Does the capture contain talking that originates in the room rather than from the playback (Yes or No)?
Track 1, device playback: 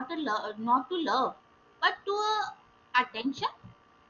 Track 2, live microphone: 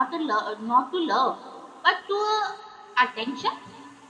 No